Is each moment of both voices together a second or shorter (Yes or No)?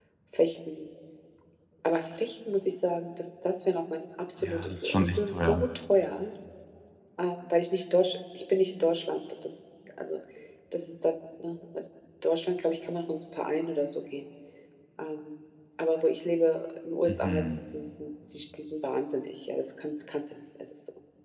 No